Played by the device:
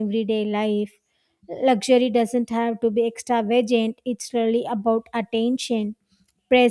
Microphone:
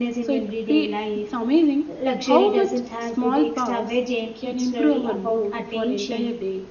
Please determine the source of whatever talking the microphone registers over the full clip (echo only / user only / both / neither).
both